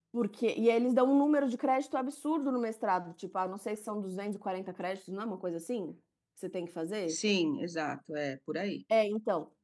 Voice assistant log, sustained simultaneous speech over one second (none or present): none